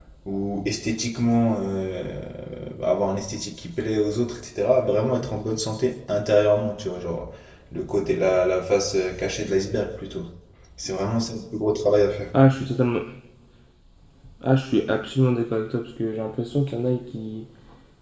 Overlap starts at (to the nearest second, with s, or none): none